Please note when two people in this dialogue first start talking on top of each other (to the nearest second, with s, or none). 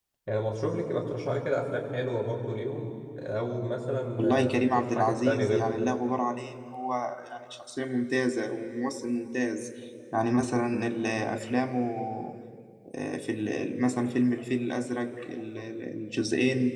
4 s